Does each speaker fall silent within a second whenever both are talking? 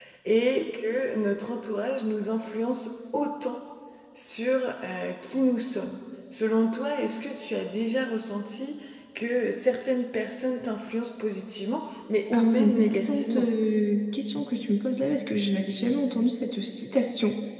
No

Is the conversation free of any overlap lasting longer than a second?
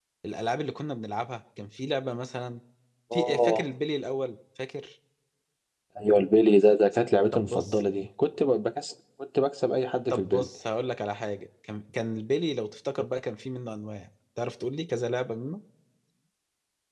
Yes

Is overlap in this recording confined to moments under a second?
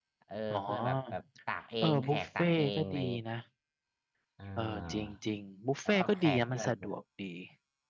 No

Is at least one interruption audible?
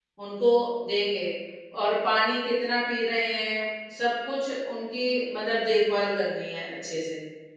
No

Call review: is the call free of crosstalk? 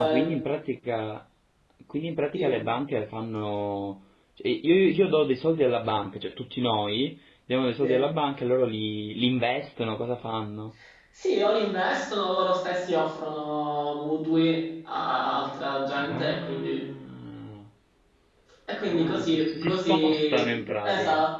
No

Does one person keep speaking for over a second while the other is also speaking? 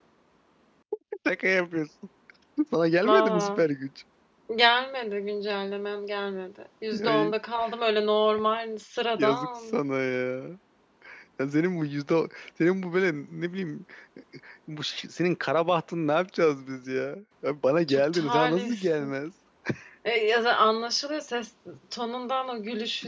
Yes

